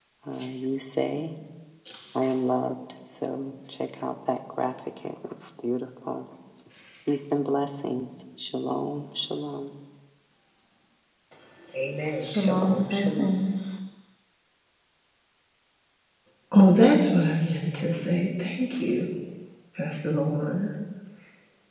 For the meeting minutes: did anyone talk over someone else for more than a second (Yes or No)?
Yes